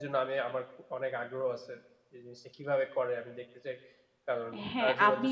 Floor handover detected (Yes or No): Yes